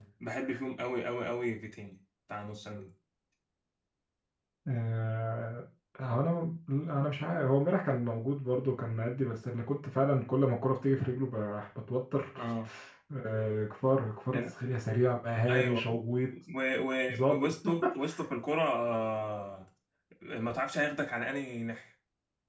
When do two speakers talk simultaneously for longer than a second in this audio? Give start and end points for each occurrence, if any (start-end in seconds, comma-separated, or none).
none